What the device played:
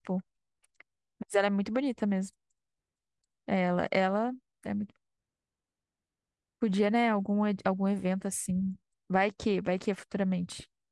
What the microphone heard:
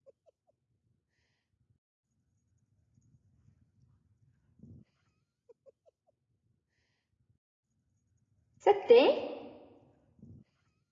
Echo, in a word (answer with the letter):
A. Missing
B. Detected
A